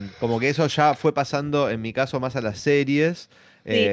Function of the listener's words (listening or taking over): listening